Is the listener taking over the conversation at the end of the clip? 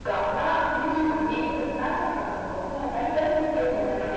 Yes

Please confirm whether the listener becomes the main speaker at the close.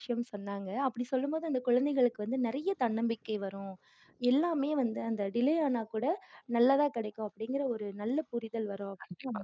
Yes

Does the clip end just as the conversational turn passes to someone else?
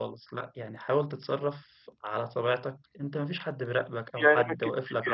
Yes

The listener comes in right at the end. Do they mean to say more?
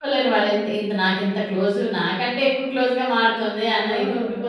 Yes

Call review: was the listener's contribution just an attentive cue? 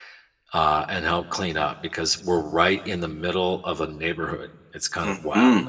No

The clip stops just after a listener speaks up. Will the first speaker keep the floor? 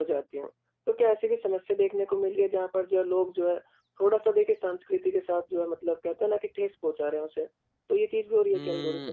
No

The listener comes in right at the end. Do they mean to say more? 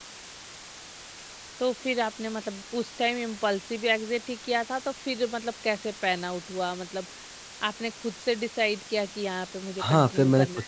Yes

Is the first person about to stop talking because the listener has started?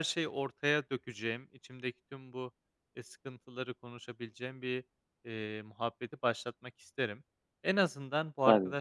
No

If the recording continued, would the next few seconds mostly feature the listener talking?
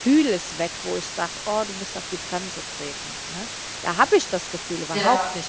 No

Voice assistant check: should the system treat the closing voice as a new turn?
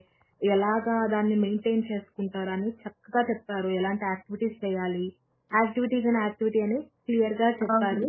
No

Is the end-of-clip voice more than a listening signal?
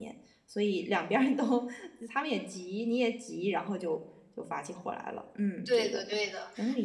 Yes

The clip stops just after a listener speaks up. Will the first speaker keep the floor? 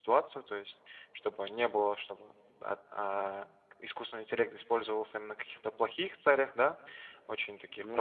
Yes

